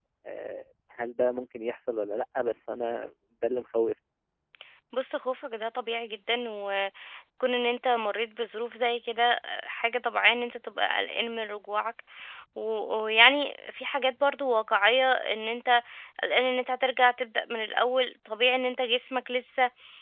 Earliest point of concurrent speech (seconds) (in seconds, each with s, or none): none